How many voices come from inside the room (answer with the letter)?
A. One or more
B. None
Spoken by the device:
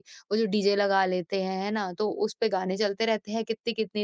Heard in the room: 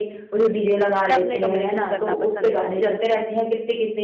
A